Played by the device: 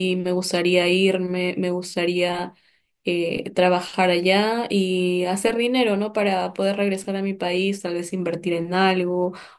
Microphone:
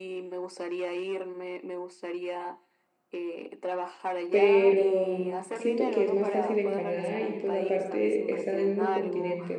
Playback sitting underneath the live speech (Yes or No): Yes